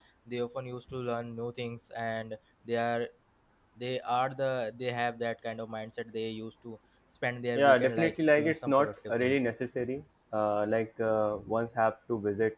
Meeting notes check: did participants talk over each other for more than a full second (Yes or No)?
Yes